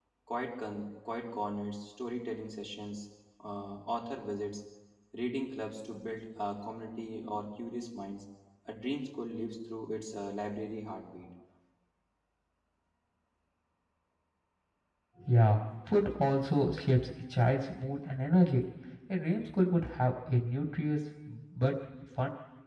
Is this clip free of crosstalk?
Yes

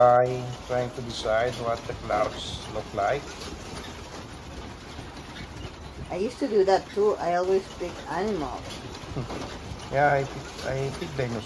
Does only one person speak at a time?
Yes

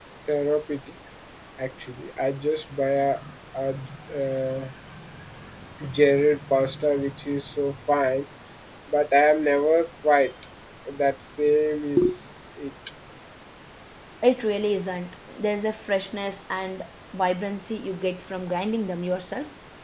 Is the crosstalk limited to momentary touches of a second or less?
Yes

